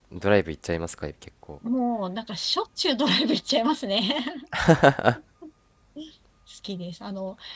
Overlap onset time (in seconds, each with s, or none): none